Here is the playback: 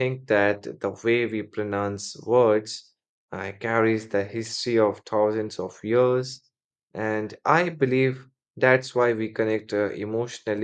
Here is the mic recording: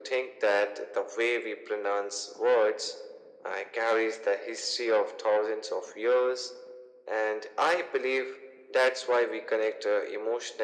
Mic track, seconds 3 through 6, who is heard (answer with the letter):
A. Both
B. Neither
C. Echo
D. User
C